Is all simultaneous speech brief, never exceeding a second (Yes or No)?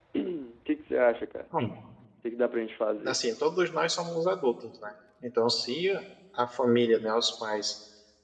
Yes